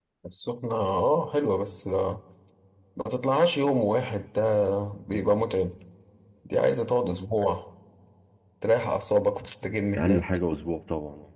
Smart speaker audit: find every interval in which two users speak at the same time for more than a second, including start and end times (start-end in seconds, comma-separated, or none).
none